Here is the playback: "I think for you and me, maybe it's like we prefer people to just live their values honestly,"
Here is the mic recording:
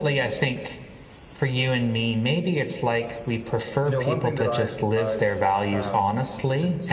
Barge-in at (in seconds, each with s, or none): 3.8 s